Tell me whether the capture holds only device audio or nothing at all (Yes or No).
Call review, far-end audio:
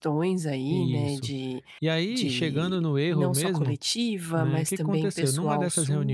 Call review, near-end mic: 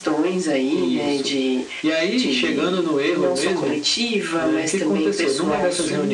Yes